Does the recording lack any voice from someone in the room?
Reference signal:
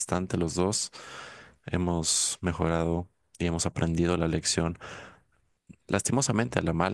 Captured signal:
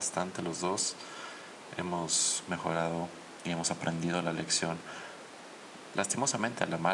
Yes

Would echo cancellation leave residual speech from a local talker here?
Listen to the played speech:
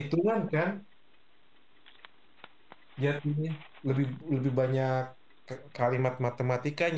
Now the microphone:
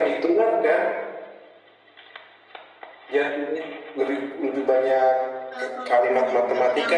Yes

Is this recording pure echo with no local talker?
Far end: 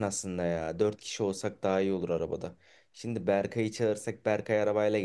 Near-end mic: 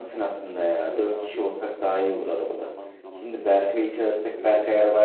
No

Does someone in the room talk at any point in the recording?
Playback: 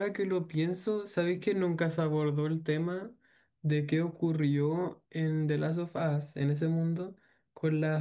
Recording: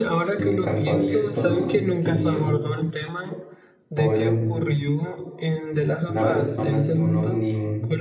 Yes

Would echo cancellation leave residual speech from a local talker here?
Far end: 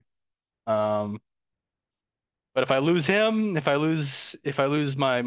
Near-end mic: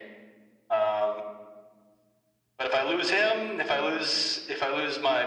No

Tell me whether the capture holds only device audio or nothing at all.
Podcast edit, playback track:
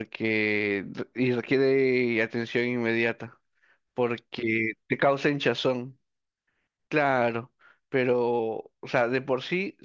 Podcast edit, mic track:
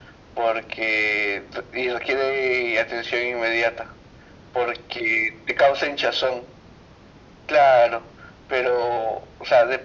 Yes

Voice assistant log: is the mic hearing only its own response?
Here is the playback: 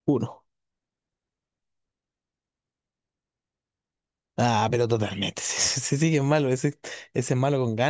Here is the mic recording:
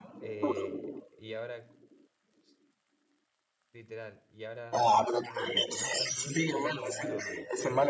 No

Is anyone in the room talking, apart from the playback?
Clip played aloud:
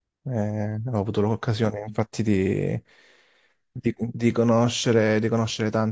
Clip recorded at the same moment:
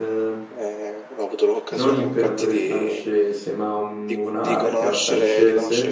Yes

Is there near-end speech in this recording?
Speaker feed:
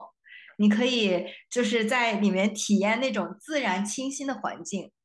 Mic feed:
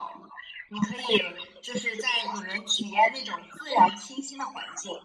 No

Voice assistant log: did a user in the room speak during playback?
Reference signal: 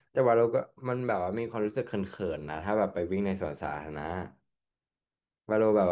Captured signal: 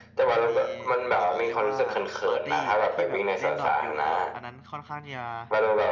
Yes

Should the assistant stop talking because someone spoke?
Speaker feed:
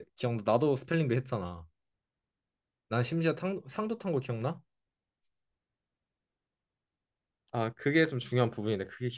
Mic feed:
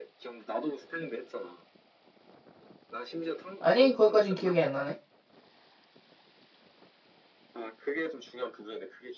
Yes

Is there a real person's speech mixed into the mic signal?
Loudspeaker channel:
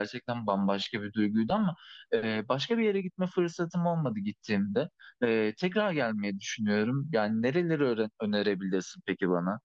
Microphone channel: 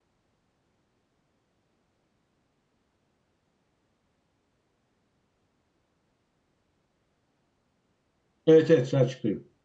Yes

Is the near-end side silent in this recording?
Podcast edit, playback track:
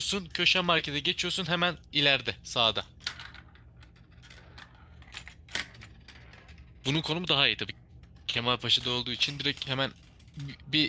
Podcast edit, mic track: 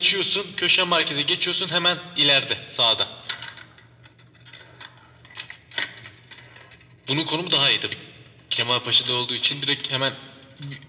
Yes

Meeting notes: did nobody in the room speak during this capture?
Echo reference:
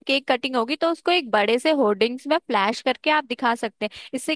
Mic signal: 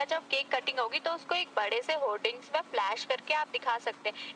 Yes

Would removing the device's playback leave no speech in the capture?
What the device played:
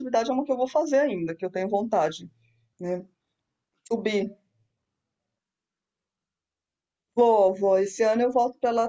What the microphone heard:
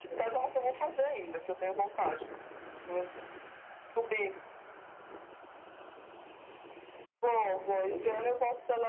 Yes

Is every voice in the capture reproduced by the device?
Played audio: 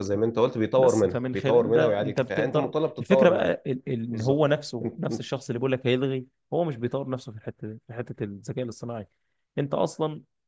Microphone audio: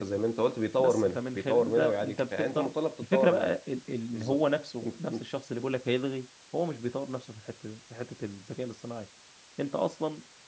Yes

